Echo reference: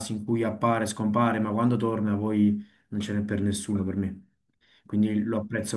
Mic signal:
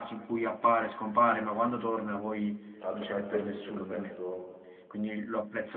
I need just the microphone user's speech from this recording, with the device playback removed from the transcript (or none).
tra l'altro questo succede spesso